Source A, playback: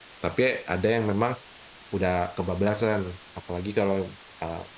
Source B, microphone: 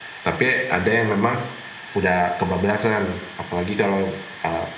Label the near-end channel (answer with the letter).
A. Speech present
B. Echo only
B